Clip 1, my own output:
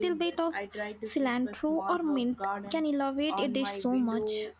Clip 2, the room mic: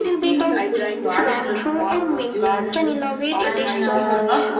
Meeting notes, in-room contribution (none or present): present